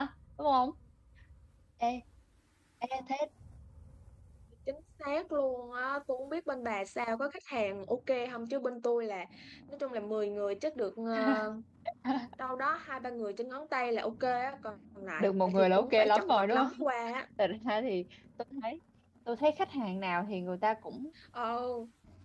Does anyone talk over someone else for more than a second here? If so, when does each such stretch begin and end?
15.2-16.6

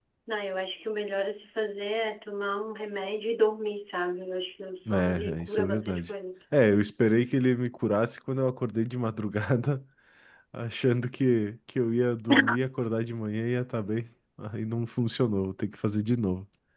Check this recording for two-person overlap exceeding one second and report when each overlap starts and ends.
4.9-6.1

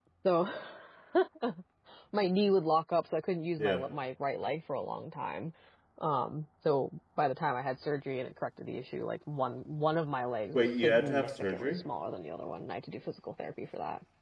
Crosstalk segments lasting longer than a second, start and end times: 10.5-11.8

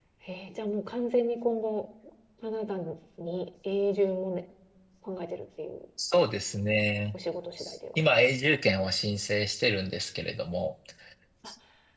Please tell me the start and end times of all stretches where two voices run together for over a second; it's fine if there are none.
none

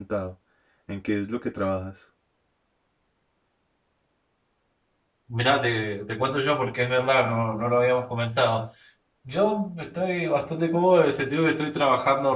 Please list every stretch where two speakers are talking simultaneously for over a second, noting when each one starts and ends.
none

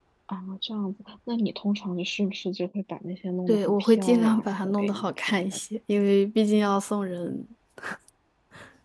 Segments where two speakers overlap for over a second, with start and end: 3.5-5.6

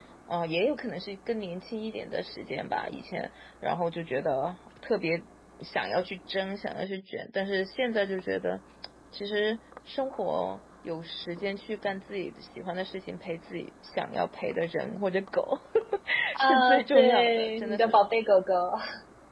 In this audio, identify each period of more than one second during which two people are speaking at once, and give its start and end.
16.4-18.0

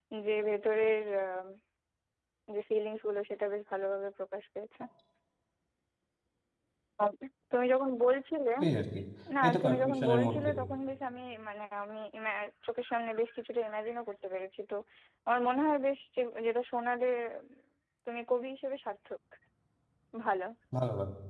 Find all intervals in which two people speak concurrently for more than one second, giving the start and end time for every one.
9.4-10.7

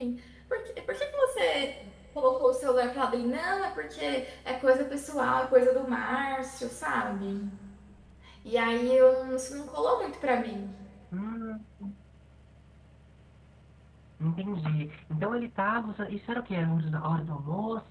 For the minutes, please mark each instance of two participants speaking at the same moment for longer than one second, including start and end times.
none

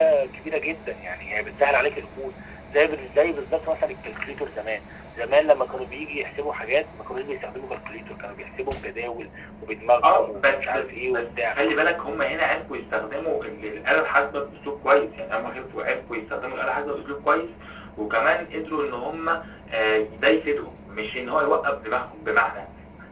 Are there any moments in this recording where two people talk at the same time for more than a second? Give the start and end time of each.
10.0-11.6

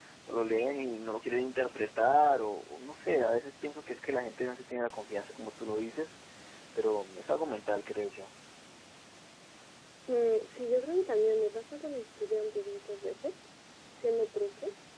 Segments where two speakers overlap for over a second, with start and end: none

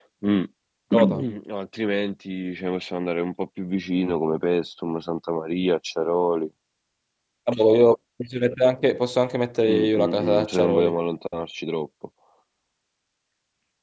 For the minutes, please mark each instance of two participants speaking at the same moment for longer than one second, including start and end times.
9.7-10.9

